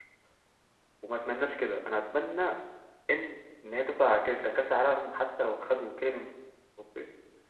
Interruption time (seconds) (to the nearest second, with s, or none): none